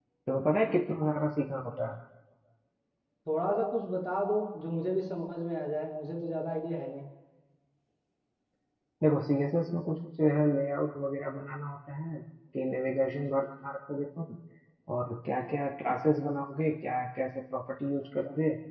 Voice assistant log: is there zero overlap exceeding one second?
Yes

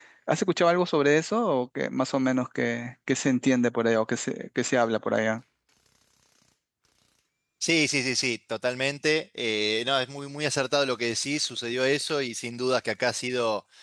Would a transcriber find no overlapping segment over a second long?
Yes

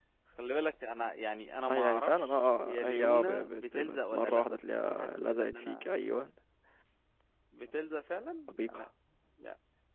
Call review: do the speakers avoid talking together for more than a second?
No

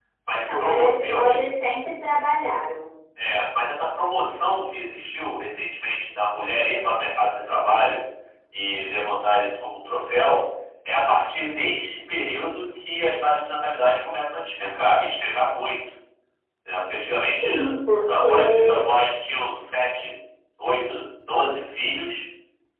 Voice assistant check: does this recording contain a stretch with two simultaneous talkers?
Yes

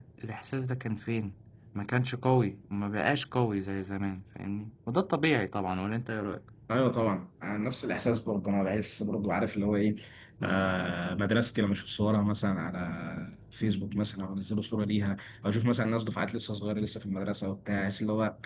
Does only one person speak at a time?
Yes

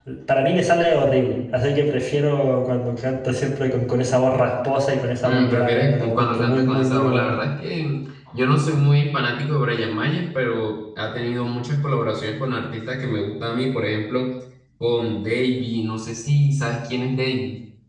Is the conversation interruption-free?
No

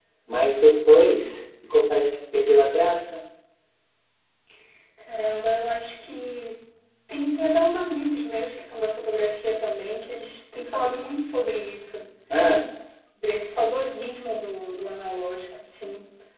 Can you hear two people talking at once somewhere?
No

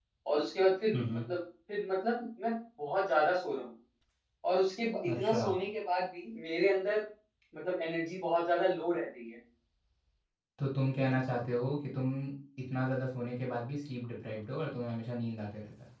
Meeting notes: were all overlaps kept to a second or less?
Yes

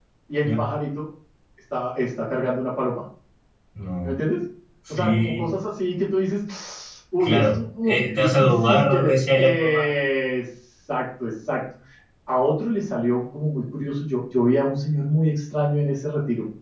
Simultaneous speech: Yes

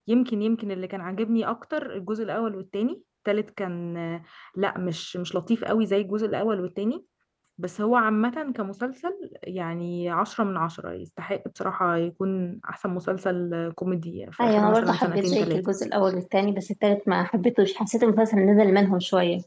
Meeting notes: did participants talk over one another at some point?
Yes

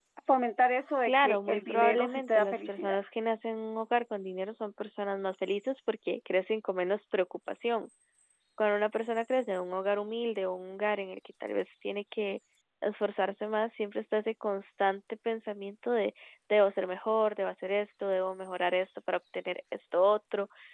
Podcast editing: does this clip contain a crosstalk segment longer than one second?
Yes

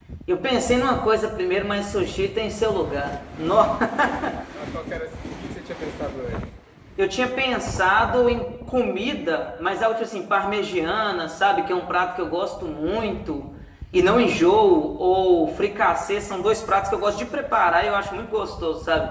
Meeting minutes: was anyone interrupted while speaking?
No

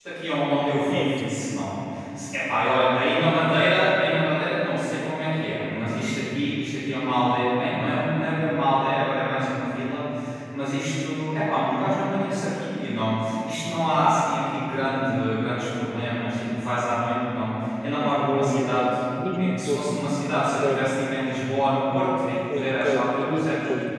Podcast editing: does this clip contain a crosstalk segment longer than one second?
Yes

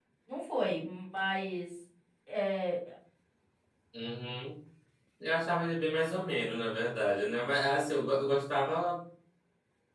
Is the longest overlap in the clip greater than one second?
No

